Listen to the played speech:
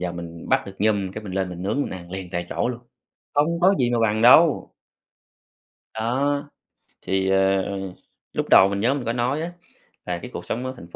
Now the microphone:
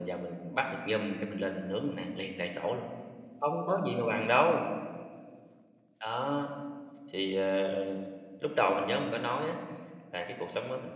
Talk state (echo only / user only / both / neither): echo only